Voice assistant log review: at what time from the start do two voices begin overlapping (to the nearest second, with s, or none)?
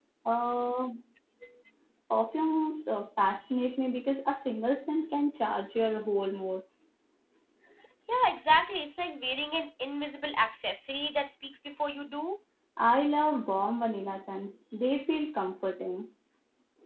none